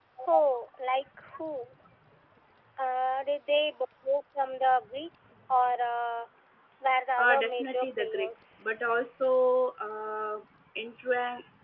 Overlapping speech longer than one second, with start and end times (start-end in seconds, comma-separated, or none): 7.2-8.5